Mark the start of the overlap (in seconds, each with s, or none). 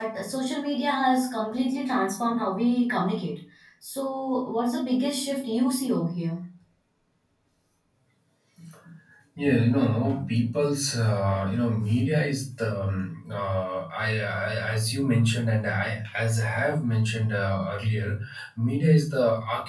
none